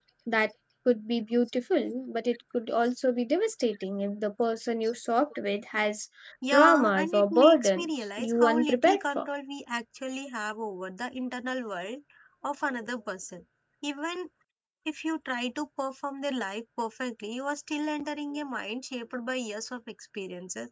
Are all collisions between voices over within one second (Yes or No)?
No